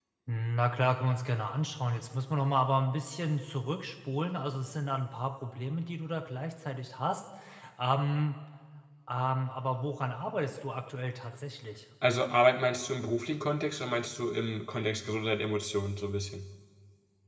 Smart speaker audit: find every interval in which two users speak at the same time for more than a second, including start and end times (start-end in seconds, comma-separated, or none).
none